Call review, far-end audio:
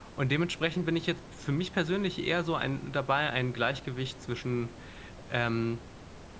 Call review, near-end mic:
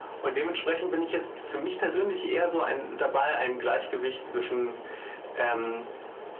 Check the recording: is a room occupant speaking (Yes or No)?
No